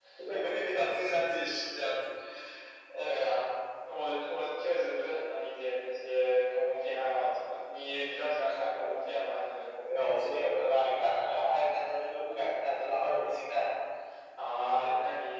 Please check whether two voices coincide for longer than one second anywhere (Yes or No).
No